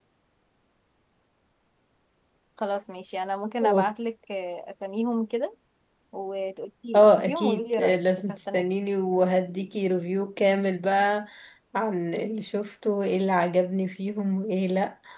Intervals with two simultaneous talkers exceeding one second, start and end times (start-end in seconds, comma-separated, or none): 6.9-8.7